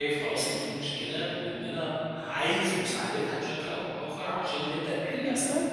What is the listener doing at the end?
taking over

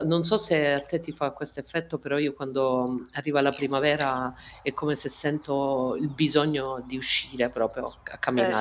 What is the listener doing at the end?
taking over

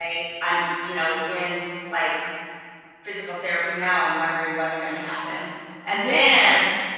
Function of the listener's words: listening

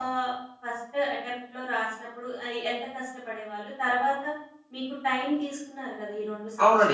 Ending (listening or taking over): taking over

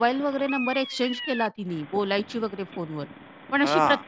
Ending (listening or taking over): listening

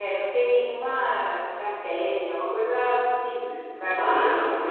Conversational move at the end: taking over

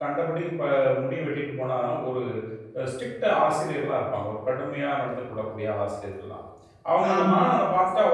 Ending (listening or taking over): listening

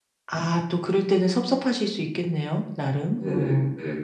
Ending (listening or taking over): taking over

